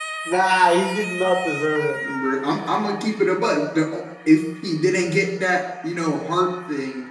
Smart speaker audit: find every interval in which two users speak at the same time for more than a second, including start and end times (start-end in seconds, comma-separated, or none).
none